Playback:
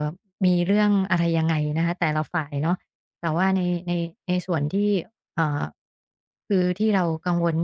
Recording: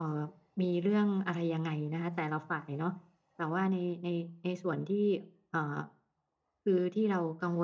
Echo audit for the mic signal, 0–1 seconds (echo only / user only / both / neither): echo only